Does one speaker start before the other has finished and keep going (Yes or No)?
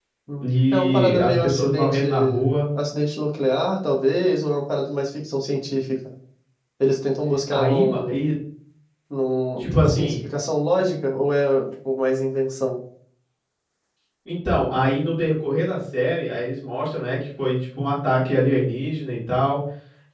Yes